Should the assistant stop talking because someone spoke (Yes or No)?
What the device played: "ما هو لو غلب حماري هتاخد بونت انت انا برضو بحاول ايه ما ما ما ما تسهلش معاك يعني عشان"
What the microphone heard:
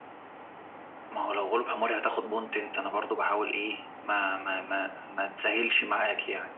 No